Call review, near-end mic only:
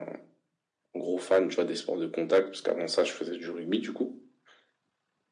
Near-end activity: none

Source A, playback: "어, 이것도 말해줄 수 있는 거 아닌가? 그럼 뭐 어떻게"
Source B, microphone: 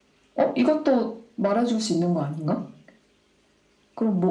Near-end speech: none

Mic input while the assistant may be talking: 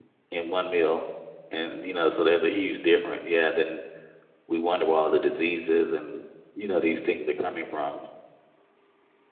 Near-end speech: present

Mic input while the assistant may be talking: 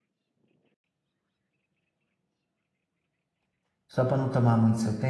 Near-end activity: present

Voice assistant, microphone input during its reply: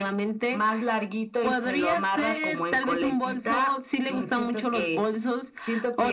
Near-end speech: none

